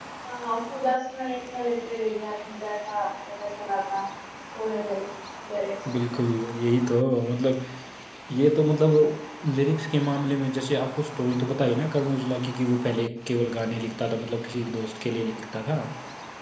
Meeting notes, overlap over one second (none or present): none